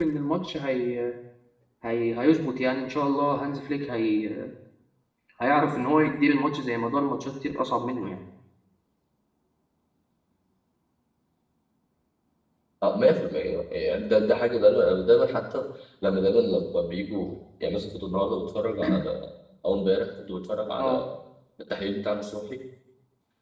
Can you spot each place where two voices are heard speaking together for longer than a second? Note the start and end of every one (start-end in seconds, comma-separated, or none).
none